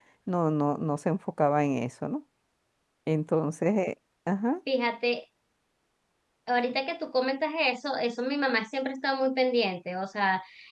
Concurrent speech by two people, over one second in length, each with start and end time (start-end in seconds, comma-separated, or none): none